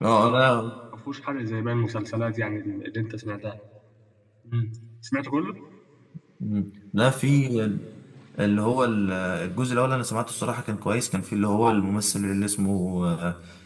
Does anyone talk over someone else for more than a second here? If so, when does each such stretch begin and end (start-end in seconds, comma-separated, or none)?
none